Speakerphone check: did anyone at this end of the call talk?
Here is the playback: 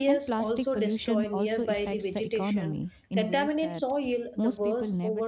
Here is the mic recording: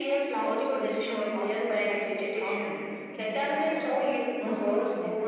No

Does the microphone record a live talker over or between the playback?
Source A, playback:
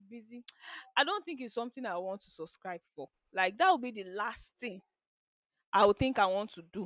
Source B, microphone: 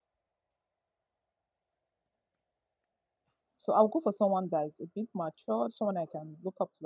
Yes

